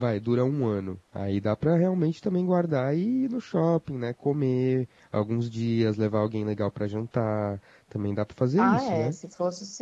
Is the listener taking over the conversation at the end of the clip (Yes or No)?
Yes